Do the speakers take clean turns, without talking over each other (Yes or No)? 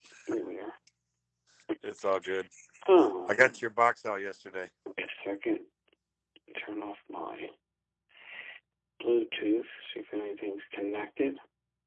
Yes